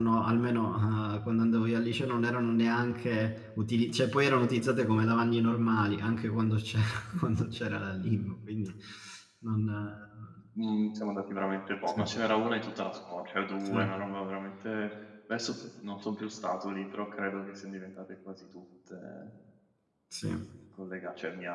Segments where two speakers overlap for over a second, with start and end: none

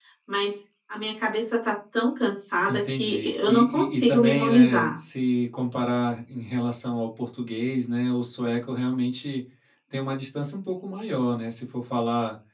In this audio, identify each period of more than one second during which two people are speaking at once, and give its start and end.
2.7-5.0

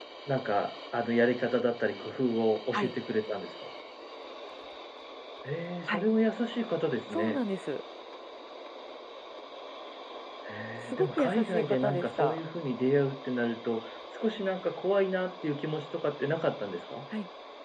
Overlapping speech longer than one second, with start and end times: 10.9-12.4

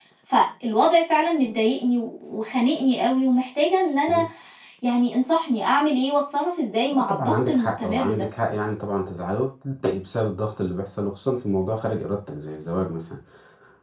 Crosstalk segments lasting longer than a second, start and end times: 6.9-8.3

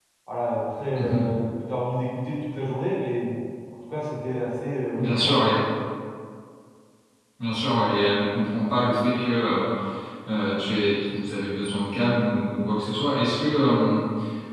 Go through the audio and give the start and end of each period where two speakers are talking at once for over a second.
none

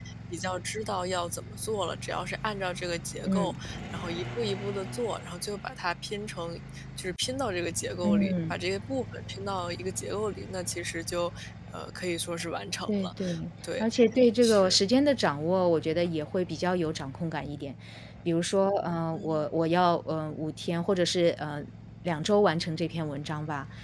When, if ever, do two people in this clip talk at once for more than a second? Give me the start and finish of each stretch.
none

